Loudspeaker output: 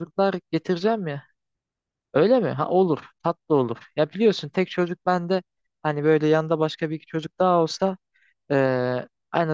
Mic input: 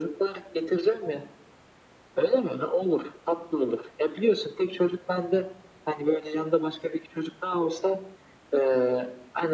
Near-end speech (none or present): none